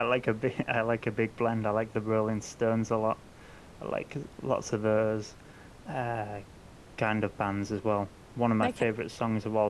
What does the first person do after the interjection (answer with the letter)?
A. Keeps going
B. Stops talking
A